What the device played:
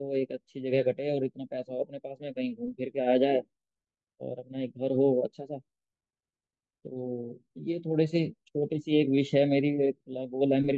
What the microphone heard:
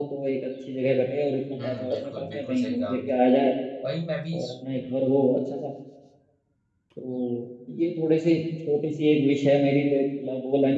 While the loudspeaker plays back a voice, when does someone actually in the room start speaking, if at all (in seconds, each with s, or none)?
1.6 s